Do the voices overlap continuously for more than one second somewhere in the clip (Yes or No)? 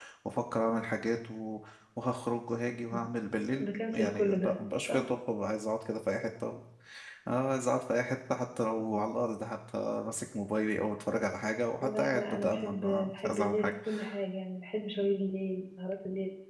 Yes